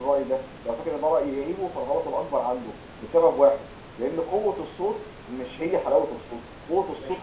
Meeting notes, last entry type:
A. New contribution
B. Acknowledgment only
B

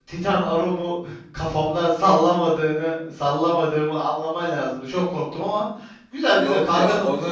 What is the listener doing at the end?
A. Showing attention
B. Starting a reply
B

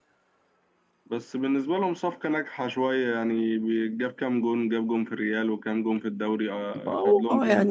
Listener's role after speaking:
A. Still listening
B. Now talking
B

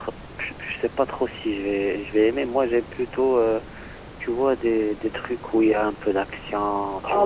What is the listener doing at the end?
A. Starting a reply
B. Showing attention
A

